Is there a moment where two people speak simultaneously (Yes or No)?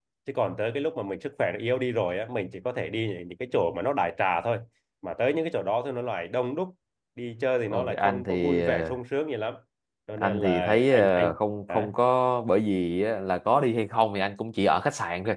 Yes